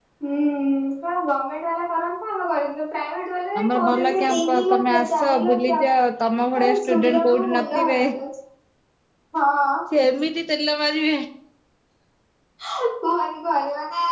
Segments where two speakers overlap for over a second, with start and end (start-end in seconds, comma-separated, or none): 3.6-5.8, 6.5-8.0